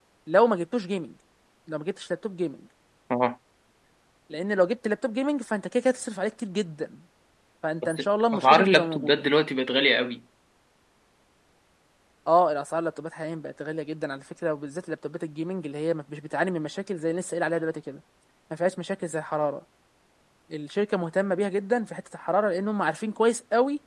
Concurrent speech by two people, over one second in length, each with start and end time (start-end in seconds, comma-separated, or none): 7.8-9.3